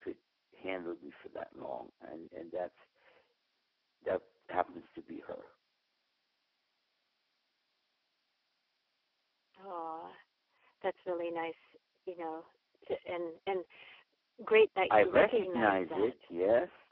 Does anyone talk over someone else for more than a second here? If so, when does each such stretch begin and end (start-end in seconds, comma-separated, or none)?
14.9-16.1